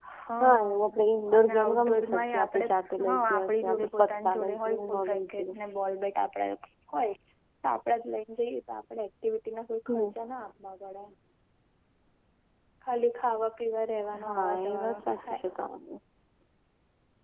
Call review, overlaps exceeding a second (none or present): present